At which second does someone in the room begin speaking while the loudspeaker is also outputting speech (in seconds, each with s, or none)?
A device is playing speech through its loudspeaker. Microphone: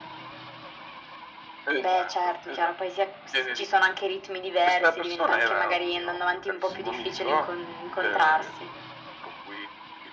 none